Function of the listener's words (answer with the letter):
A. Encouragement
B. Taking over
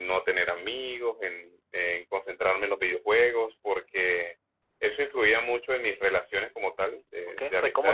B